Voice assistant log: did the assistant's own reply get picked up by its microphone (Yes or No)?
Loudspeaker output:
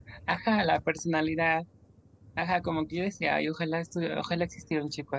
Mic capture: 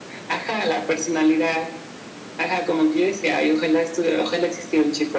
Yes